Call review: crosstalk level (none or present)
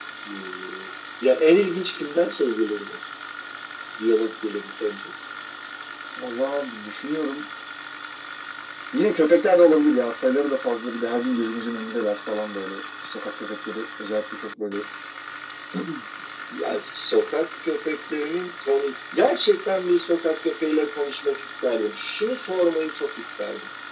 none